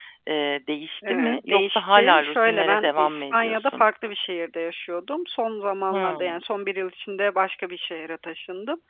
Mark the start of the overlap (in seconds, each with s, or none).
1.1 s